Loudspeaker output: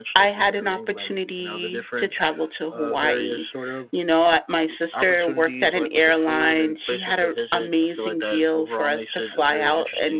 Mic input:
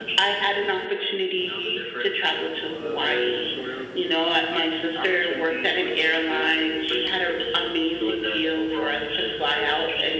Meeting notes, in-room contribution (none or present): none